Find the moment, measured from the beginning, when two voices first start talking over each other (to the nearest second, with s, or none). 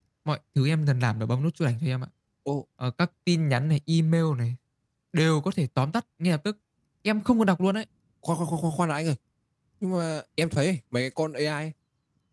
none